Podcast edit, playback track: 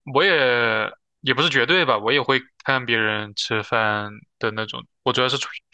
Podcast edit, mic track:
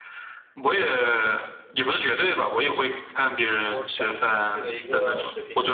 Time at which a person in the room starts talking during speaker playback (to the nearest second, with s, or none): 4 s